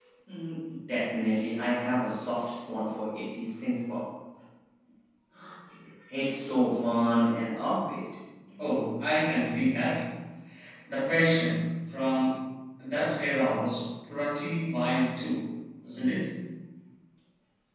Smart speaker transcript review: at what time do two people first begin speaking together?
none

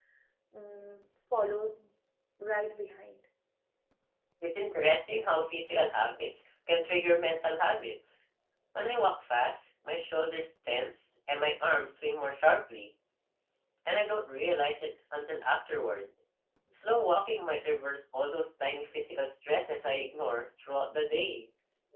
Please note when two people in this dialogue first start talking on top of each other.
none

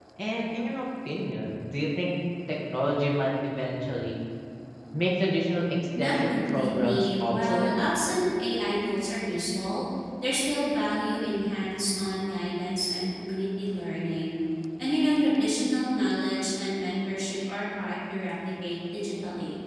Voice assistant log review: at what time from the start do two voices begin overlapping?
6.0 s

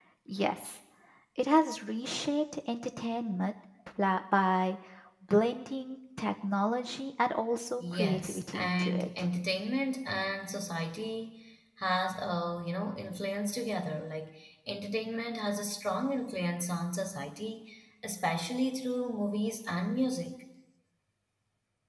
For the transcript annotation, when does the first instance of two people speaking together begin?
7.8 s

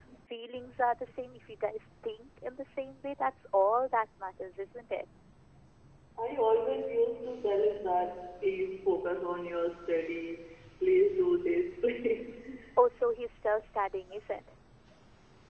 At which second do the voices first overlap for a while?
none

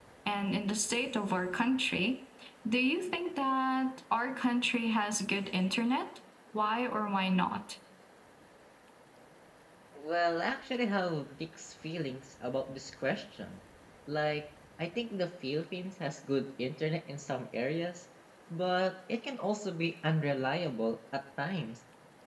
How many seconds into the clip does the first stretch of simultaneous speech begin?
none

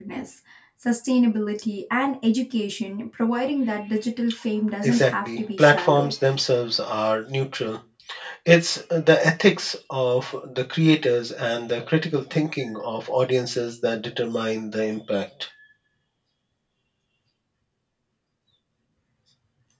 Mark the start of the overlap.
4.8 s

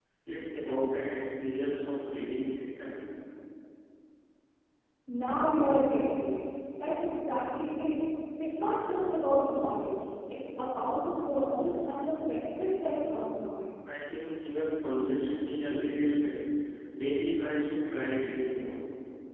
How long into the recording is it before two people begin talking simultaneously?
none

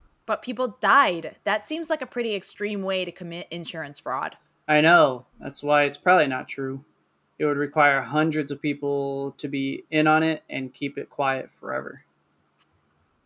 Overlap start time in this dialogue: none

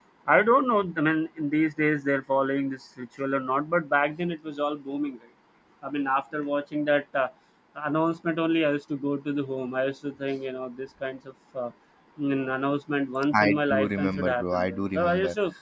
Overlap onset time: 13.3 s

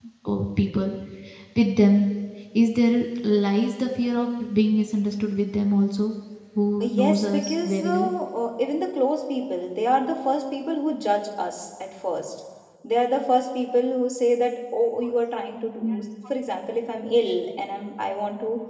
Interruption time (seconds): 6.8 s

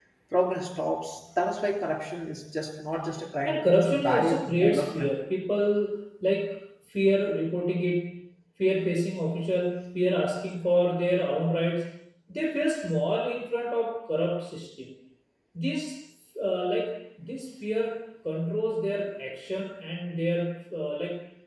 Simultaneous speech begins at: 3.4 s

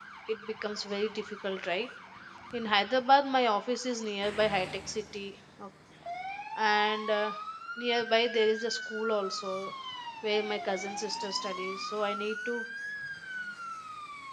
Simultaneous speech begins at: none

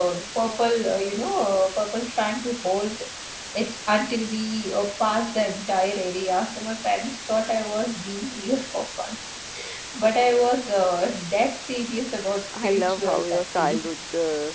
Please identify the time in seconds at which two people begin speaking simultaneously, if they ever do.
12.5 s

